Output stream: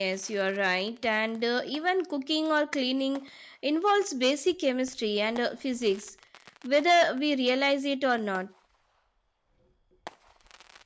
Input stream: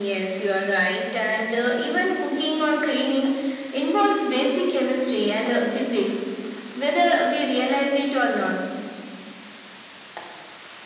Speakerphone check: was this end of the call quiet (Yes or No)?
Yes